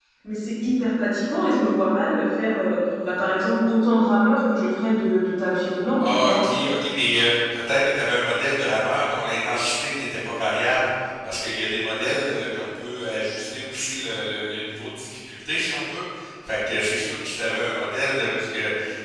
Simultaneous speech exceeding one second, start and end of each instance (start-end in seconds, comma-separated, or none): none